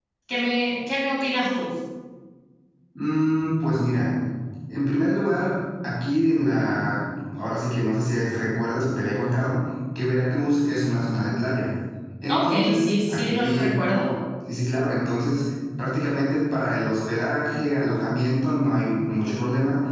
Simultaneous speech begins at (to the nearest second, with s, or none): 12 s